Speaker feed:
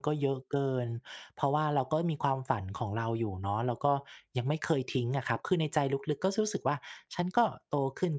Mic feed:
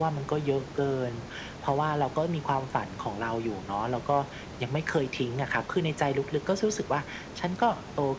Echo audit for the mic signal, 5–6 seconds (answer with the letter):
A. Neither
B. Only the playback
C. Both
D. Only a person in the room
B